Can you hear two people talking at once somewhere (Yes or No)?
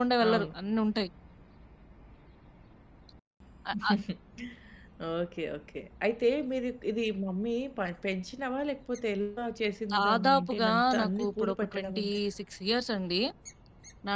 Yes